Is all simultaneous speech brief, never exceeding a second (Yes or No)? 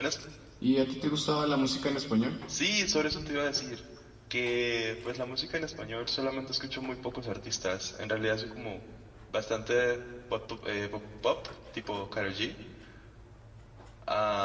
Yes